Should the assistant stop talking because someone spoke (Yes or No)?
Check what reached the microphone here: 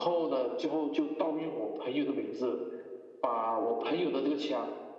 No